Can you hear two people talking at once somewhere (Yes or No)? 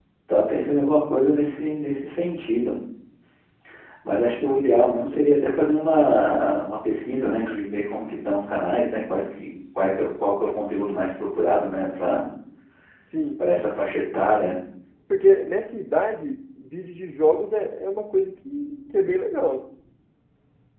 No